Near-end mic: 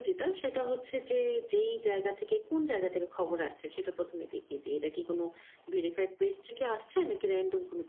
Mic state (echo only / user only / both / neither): echo only